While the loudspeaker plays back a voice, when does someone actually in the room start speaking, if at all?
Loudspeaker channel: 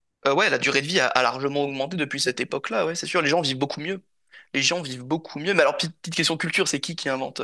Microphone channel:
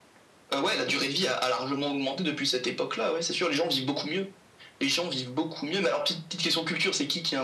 none

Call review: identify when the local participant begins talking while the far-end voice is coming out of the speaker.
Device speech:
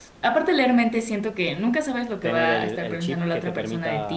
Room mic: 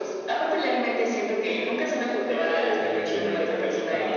2.8 s

